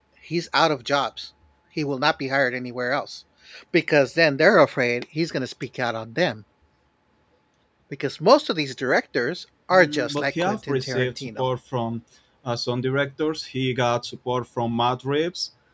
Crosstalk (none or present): present